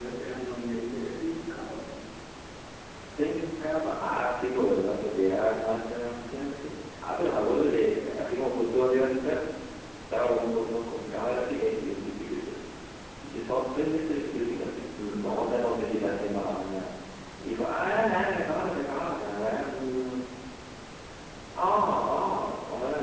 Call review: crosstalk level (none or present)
none